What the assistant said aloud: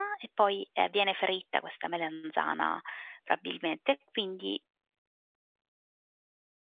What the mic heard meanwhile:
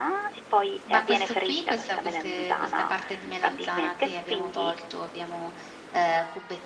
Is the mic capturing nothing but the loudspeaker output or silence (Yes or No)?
No